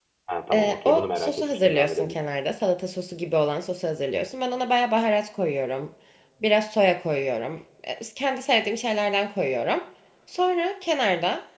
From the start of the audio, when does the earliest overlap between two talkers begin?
0.5 s

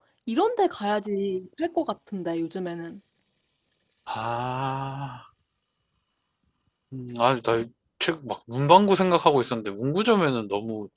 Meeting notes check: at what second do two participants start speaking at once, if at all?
none

